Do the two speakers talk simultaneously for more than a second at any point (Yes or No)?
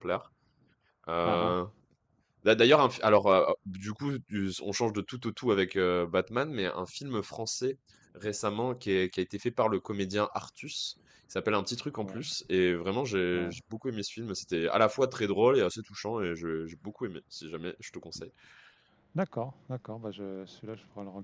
No